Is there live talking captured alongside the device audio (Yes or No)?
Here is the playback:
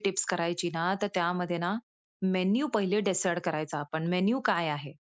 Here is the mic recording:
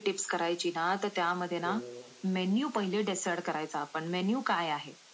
Yes